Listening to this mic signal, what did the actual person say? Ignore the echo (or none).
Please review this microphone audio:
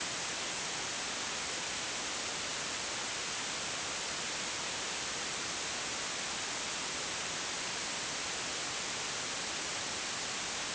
none